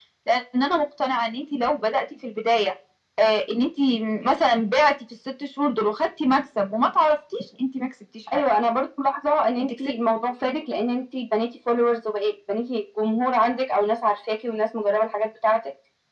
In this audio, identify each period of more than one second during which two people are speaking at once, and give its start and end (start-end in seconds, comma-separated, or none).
none